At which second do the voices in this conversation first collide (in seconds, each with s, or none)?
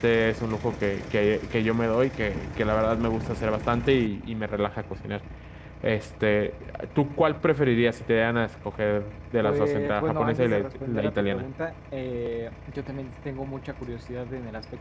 9.4 s